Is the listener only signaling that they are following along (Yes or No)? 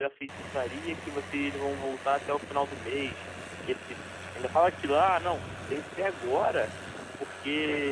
Yes